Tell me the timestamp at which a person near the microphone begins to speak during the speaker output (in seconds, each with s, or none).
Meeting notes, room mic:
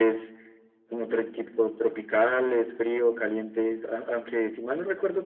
none